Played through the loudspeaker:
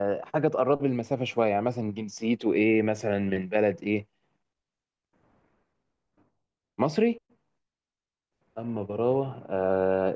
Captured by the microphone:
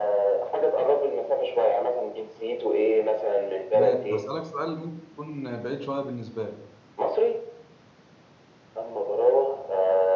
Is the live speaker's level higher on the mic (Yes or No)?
No